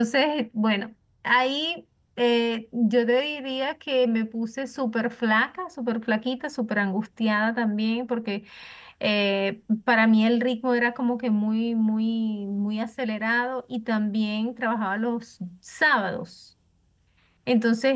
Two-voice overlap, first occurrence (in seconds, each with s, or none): none